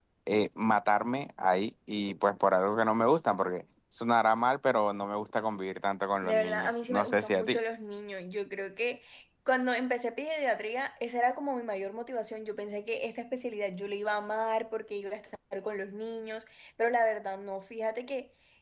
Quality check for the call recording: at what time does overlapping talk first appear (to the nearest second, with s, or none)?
6 s